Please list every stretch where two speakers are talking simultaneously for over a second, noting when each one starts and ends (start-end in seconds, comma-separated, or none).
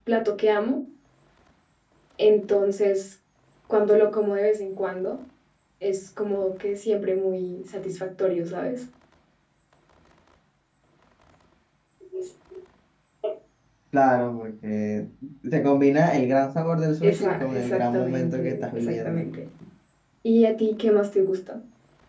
17.0-19.3